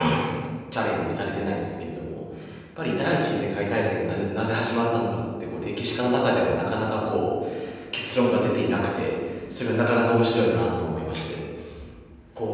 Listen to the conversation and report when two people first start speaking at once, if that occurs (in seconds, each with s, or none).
none